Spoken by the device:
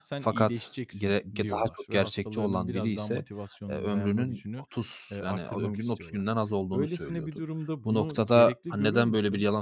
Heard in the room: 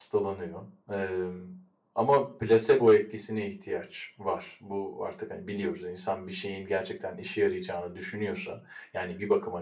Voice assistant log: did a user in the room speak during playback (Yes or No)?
Yes